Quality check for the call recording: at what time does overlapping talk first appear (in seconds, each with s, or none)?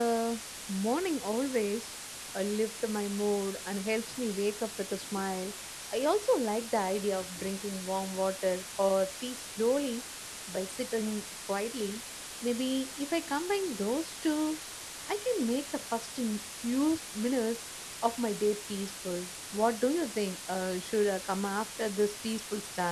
none